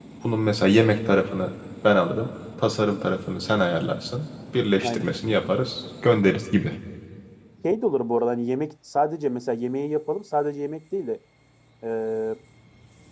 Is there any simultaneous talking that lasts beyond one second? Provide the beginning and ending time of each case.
none

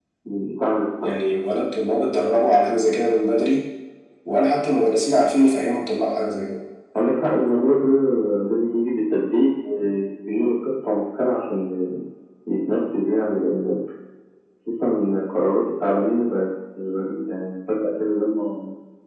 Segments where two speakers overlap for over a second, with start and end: none

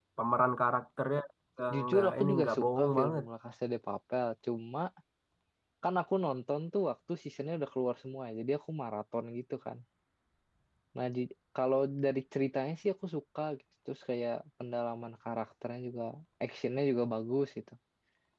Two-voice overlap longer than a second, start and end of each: 1.7-3.2

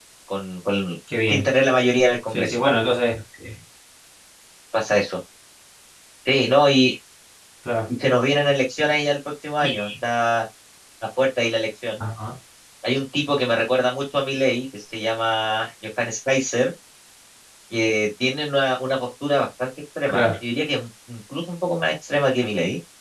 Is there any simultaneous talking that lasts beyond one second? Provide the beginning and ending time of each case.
none

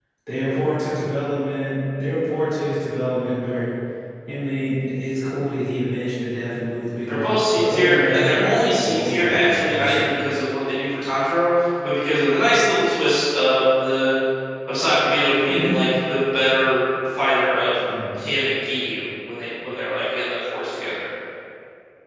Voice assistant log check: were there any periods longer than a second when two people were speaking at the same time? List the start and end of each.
7.1-10.1

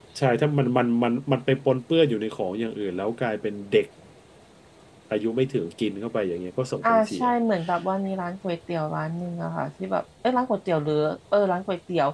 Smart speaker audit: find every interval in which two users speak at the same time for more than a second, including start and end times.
none

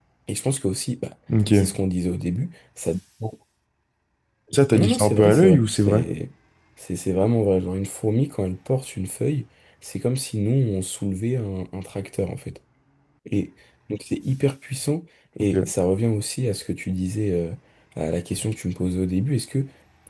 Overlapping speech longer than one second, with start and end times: 4.7-6.0

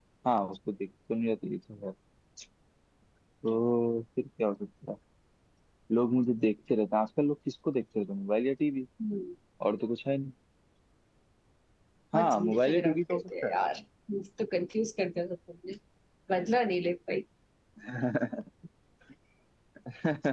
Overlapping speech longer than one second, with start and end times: 12.1-13.6

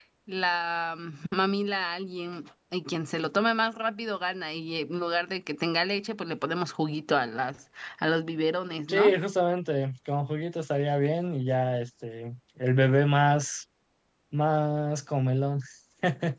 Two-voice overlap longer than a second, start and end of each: none

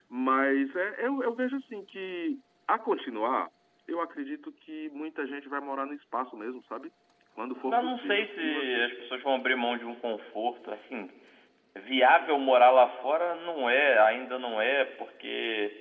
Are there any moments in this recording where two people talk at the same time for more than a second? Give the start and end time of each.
7.6-8.8

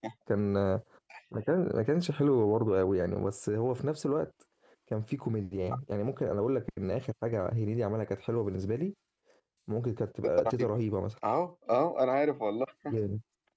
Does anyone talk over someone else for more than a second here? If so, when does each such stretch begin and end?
none

